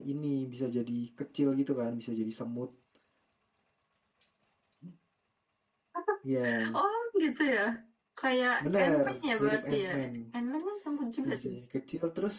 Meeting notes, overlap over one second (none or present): present